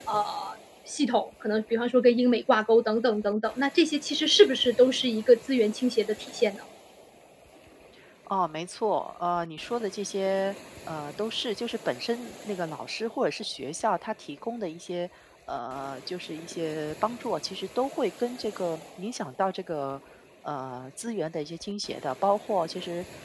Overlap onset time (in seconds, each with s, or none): none